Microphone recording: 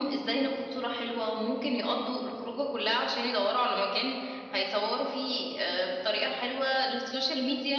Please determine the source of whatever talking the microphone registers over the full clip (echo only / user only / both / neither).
echo only